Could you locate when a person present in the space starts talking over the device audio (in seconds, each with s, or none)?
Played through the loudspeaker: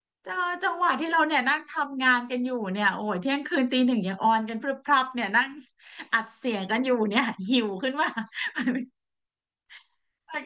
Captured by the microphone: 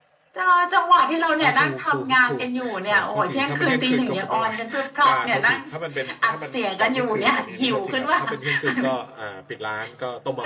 1.4 s